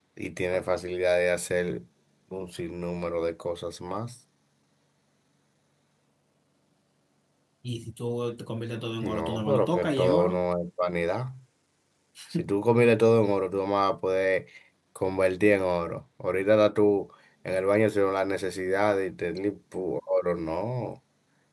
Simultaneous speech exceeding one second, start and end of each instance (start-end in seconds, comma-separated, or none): 9.0-10.4